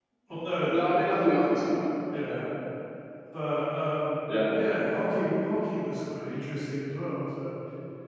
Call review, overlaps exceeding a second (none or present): none